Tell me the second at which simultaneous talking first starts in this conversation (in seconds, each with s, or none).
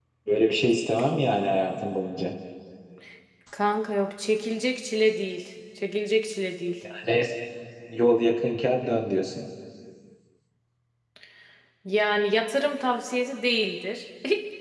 none